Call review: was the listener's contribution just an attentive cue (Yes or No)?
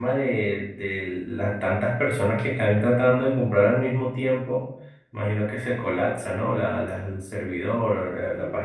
No